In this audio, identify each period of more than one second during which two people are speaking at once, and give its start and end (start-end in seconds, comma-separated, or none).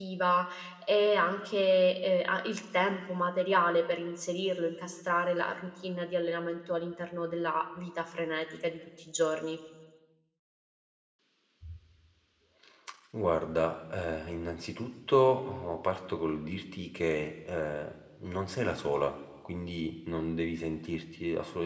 none